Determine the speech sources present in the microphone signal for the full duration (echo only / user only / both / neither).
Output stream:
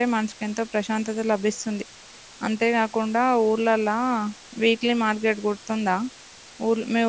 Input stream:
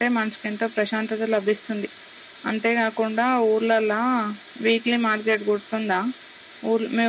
echo only